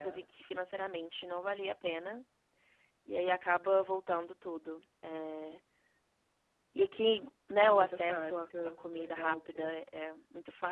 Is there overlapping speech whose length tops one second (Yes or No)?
Yes